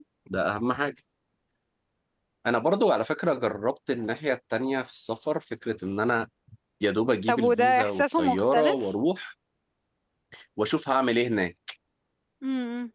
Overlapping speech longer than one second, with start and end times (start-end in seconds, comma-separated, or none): 7.3-8.8